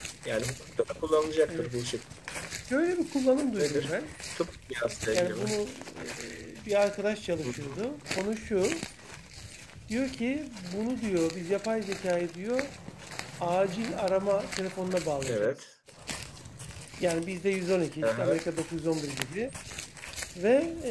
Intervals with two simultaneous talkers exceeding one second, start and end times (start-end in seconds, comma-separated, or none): none